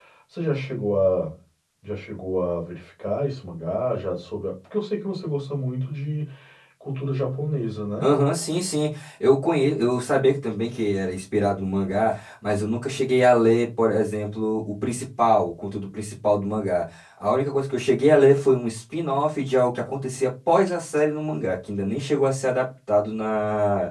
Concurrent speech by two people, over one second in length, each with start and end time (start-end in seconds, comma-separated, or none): none